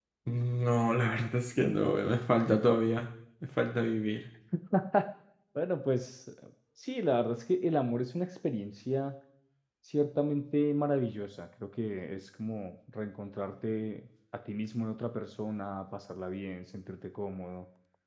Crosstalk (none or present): none